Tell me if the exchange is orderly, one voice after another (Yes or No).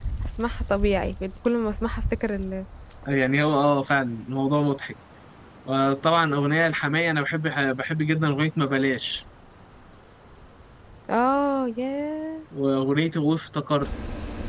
Yes